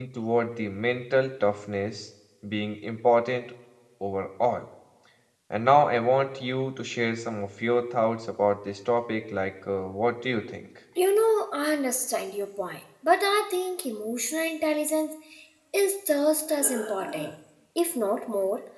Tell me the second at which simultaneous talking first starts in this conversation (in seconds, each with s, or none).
none